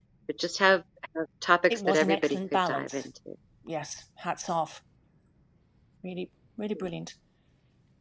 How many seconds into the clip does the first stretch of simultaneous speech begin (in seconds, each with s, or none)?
1.6 s